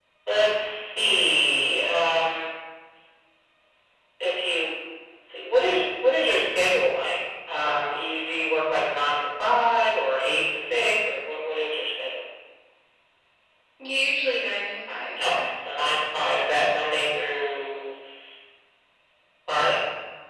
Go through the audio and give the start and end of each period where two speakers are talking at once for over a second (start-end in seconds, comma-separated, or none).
none